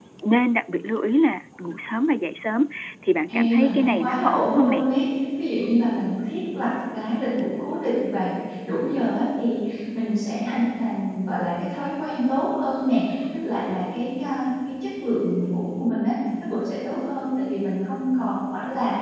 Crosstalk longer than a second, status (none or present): present